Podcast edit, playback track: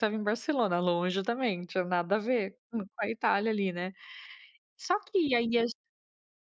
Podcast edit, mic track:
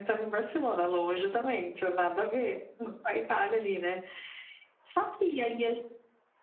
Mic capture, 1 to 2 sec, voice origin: echo only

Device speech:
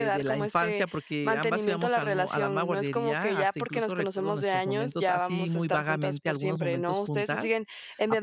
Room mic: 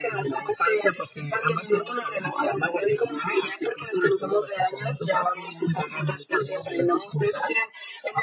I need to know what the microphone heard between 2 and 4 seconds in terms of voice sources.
echo only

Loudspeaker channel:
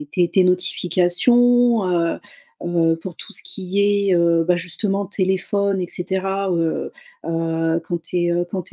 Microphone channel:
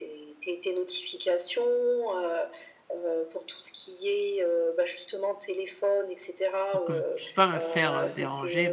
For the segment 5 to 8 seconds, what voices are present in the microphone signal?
both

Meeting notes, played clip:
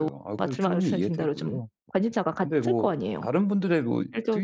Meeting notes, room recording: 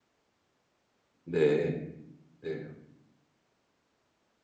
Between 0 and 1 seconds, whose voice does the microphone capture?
neither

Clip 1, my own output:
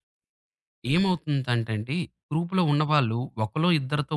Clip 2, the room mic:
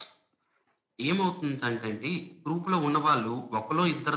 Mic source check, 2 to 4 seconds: echo only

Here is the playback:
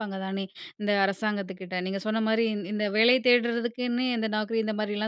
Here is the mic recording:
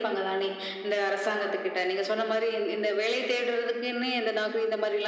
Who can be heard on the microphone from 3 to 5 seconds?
echo only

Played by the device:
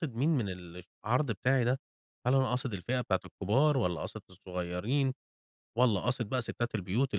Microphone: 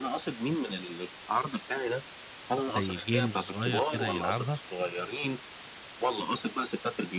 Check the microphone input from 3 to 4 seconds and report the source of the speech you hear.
both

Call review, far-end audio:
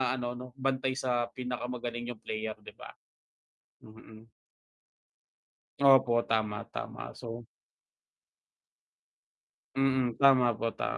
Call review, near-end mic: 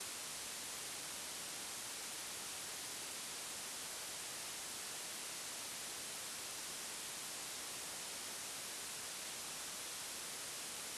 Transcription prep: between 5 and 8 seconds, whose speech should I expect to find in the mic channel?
neither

